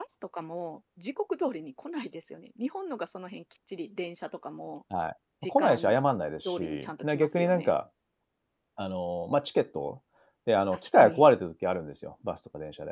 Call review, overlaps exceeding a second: present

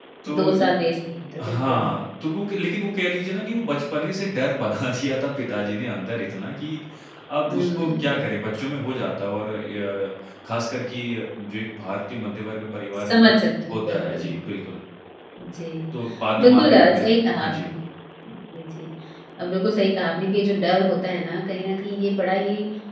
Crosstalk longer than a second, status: present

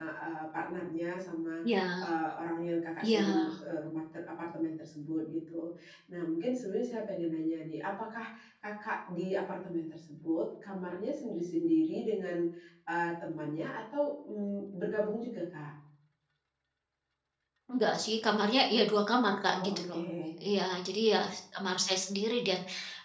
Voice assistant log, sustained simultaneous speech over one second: none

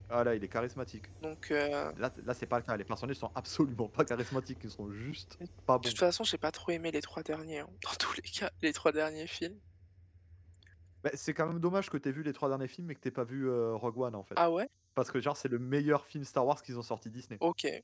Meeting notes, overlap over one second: none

